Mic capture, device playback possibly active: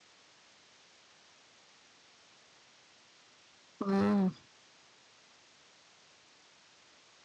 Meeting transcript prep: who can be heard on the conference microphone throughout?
user only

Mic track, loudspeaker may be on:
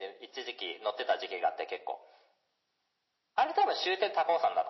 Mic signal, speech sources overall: echo only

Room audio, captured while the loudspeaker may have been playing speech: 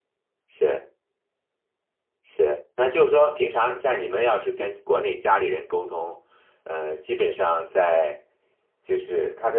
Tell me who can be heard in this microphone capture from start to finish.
user only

